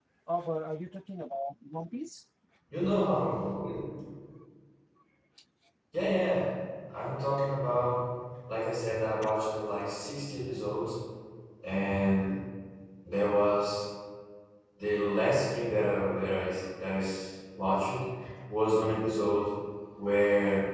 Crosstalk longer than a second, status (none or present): none